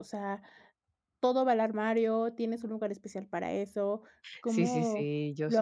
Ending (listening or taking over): taking over